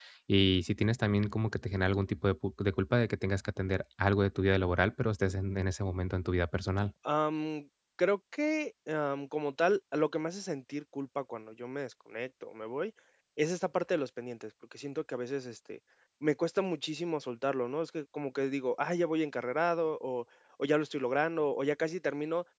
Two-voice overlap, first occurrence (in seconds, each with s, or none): none